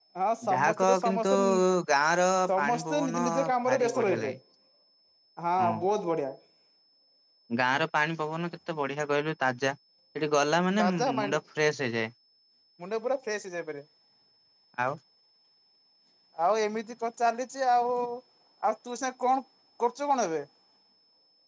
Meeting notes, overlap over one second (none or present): present